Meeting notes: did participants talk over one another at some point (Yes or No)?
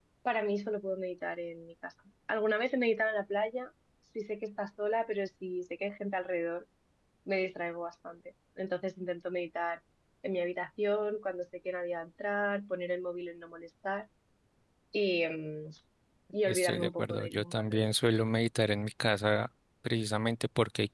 Yes